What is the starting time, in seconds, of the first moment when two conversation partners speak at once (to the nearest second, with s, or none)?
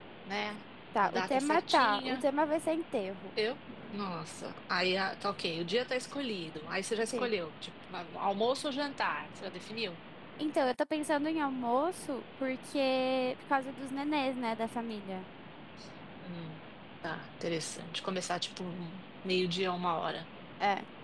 1 s